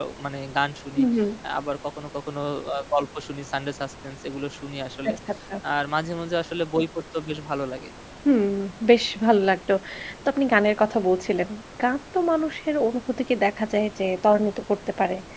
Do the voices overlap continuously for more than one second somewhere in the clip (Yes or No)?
No